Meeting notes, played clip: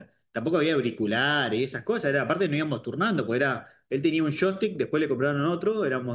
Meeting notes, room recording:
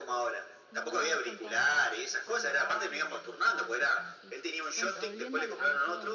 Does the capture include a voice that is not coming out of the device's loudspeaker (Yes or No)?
Yes